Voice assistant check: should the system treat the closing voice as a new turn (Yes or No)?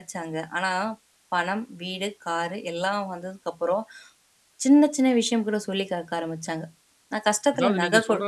Yes